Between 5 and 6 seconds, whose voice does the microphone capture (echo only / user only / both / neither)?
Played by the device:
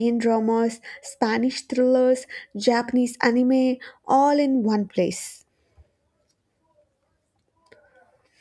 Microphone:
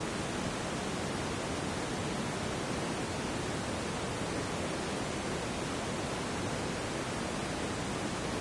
neither